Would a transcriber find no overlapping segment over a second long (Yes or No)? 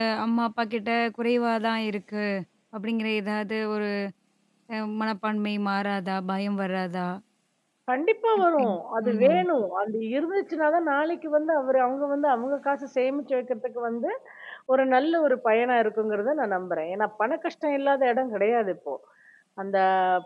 Yes